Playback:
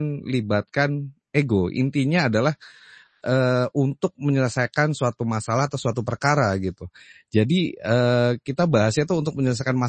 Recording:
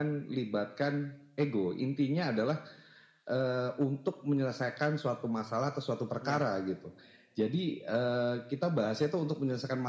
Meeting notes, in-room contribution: present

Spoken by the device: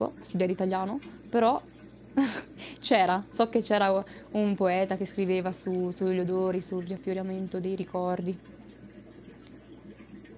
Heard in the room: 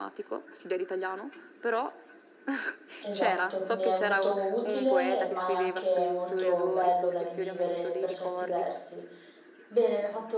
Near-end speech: present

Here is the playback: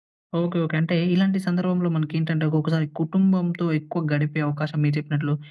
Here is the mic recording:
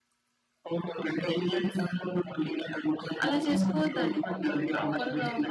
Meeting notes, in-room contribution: present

